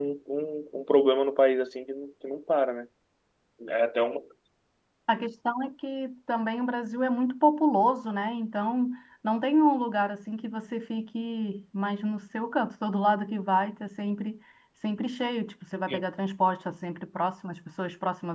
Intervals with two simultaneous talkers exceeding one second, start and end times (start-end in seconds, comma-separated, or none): none